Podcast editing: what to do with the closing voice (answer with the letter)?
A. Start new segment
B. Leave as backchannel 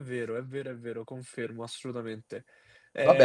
A